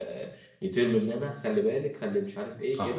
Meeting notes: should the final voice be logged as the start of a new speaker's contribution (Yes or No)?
No